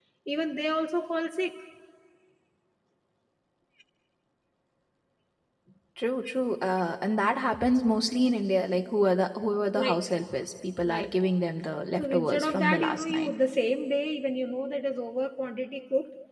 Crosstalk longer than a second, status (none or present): present